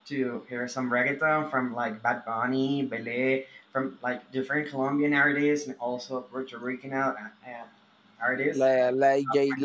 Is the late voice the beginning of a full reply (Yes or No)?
Yes